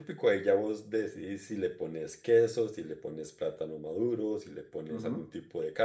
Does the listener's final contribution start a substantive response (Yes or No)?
Yes